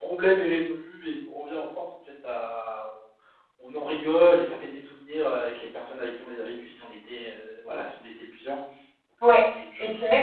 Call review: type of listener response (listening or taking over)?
taking over